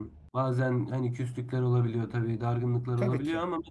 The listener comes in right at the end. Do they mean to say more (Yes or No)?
No